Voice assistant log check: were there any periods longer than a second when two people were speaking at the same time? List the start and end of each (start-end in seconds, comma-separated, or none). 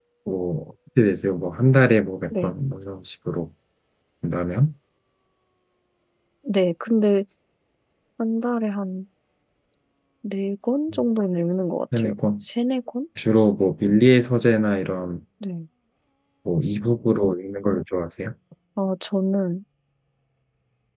none